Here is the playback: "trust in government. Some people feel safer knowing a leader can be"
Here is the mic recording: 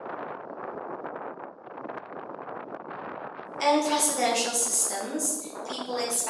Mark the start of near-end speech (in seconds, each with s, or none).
3.6 s